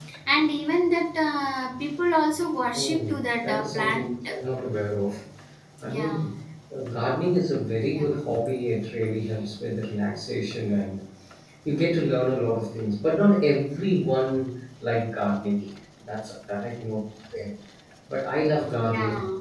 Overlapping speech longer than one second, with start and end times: 2.8-4.1

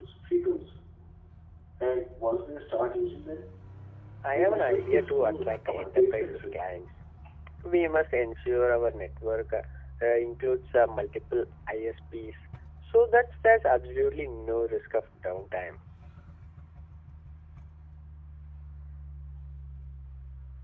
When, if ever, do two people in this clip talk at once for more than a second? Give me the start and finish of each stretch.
4.3-6.6

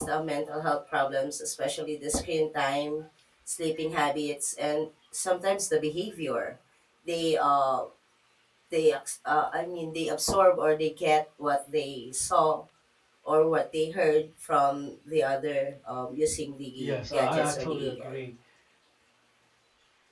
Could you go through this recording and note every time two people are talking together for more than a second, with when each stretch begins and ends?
16.8-18.1

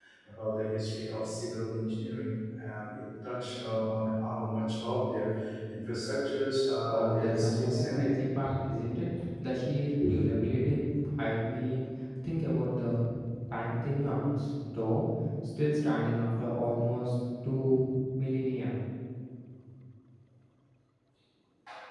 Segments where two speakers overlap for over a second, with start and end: 6.9-8.2

